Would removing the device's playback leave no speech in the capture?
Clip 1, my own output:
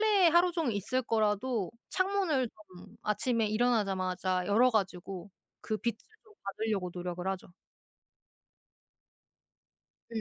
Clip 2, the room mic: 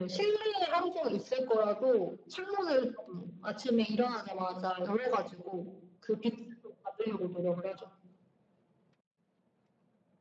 Yes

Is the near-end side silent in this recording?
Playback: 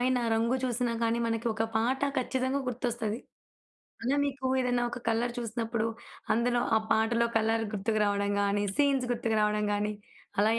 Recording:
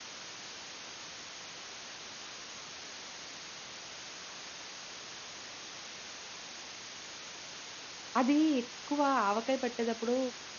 No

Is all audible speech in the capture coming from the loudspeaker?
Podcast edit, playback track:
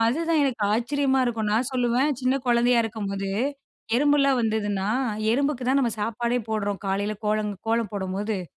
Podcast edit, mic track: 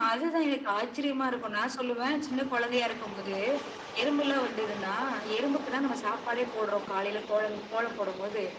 Yes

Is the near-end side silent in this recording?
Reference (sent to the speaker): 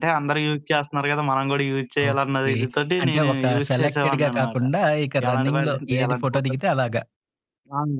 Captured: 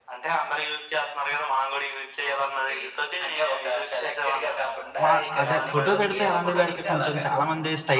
No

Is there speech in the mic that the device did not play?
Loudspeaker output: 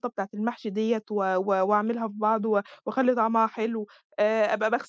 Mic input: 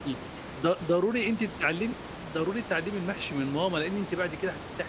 Yes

